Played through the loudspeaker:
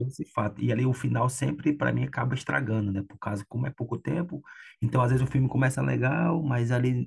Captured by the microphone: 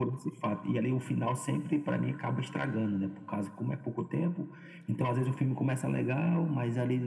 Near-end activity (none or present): none